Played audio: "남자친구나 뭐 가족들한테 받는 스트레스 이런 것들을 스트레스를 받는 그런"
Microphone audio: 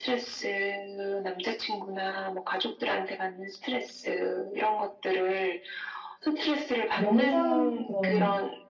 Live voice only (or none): 명상 그런